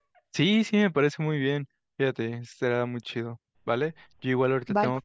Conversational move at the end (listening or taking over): listening